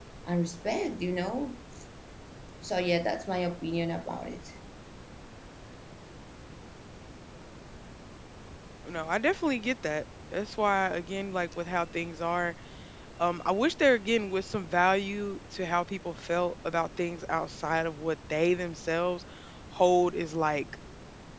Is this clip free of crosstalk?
Yes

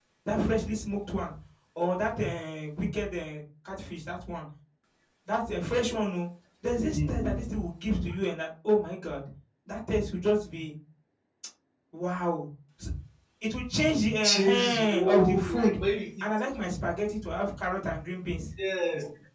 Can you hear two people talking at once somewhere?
Yes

